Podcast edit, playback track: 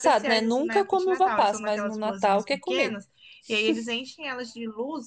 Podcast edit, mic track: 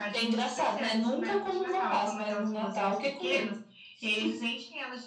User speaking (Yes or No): No